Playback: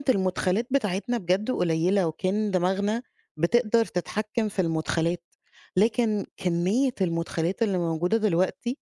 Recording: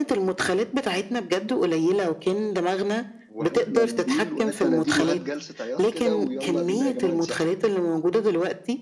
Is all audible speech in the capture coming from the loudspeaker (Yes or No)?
No